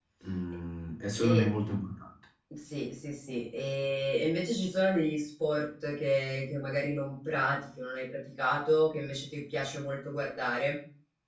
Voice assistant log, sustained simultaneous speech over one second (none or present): none